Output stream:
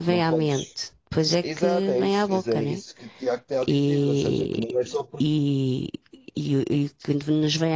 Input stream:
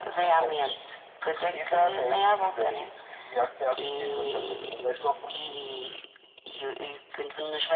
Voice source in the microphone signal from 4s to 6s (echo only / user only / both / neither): echo only